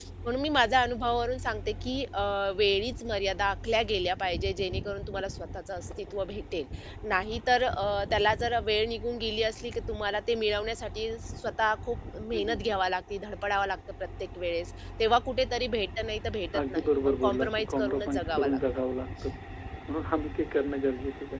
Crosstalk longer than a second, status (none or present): present